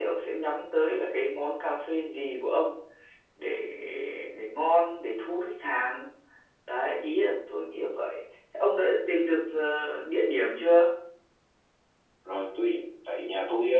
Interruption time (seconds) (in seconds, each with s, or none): none